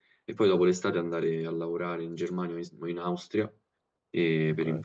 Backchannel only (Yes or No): Yes